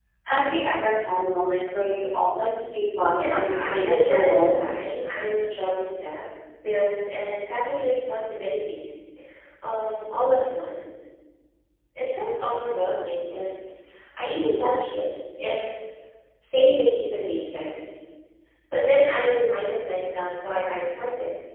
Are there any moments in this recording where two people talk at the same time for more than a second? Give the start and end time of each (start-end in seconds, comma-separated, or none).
3.2-4.6